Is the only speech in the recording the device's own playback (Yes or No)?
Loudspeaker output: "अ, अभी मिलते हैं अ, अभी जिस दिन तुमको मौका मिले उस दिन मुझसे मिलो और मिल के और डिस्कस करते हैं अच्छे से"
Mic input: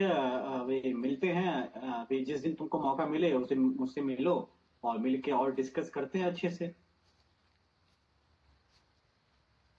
Yes